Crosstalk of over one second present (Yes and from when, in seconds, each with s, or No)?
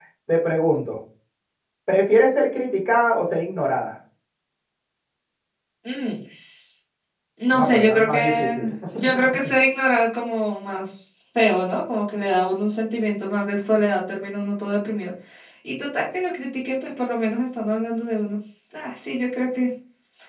Yes, from 7.5 s